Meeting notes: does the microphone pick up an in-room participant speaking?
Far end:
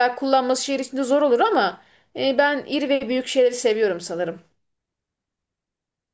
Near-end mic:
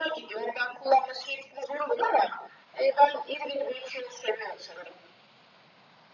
No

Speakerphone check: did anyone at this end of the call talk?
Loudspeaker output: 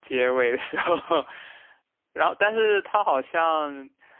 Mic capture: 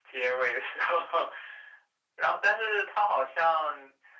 No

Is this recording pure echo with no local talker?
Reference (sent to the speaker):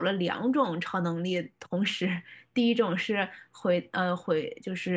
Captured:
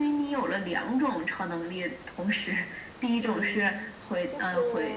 No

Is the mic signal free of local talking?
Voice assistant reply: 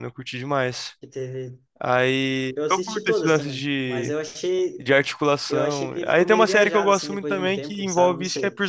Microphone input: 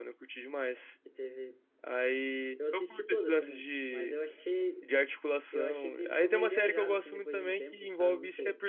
Yes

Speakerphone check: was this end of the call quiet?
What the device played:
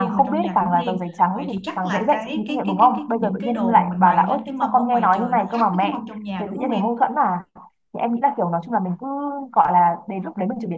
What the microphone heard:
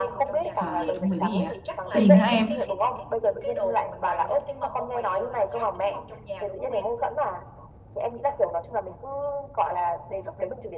No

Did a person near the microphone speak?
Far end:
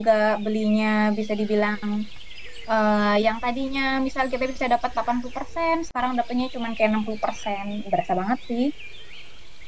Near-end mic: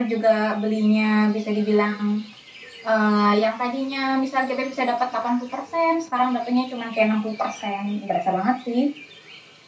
No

